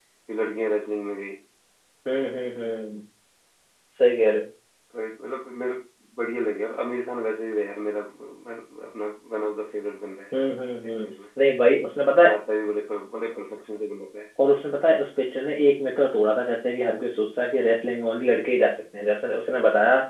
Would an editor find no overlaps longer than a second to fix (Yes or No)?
Yes